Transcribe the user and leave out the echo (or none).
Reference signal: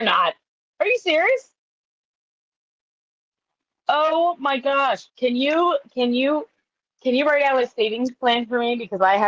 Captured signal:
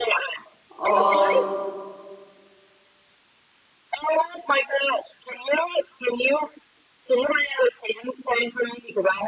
old